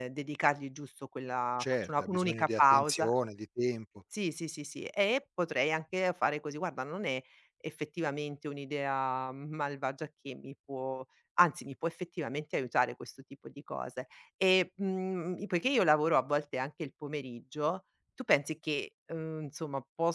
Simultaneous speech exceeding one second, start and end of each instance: 1.6-3.1

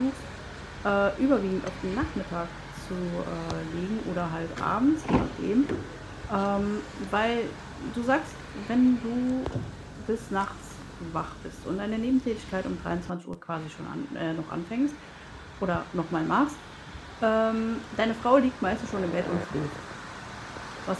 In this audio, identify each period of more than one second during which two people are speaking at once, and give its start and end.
none

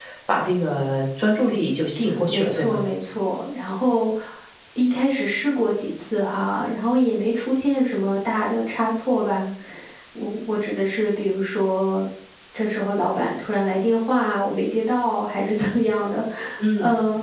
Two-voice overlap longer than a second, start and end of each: none

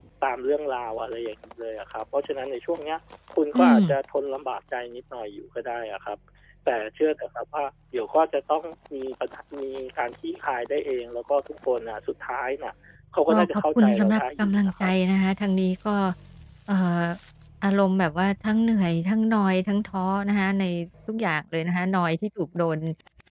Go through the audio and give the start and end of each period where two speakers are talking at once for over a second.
13.3-14.9

